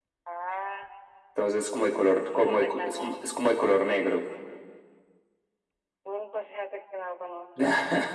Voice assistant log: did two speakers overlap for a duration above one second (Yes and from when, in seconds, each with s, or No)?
Yes, from 1.8 s